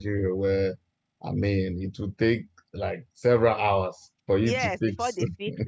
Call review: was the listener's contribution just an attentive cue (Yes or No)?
No